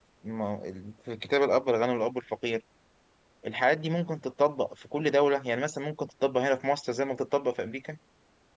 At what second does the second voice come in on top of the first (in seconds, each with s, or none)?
none